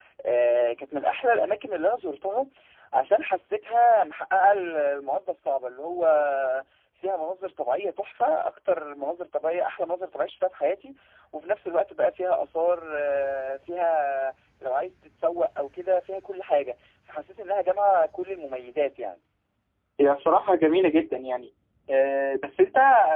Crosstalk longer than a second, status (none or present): none